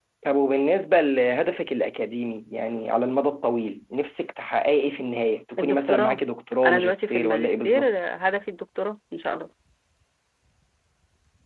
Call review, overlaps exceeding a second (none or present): present